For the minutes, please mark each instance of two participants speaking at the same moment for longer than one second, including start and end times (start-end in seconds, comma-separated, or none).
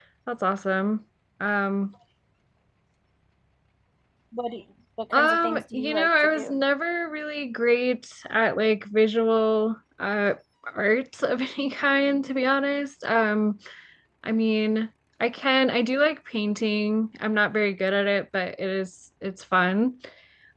5.1-6.6